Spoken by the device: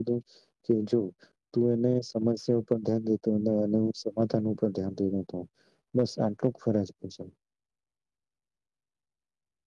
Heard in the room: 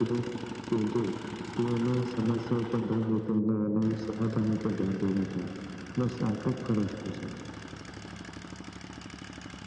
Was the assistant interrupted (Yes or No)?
No